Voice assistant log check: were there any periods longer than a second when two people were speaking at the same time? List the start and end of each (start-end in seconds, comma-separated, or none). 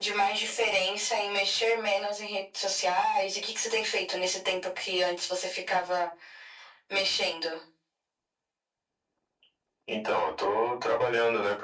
none